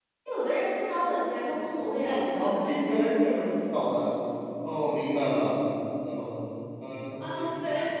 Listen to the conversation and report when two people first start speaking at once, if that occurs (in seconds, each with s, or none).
1.9 s